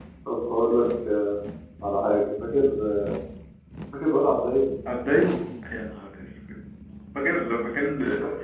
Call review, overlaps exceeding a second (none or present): none